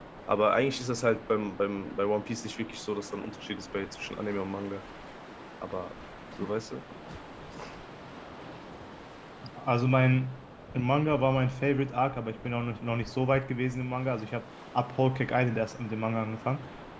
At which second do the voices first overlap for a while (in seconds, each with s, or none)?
none